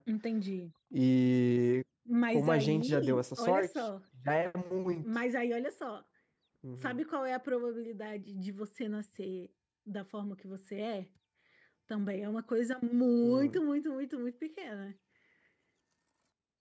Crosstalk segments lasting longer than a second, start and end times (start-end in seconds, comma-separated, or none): 2.3-3.9